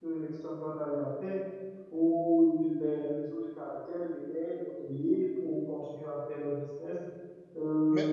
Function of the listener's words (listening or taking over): listening